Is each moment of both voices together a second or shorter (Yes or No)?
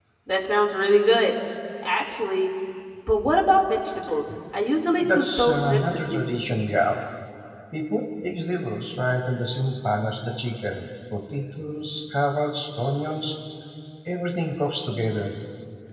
No